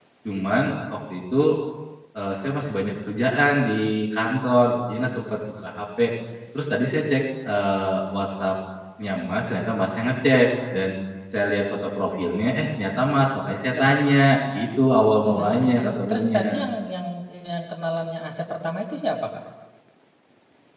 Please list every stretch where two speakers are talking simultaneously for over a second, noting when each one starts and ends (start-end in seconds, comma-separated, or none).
15.2-16.7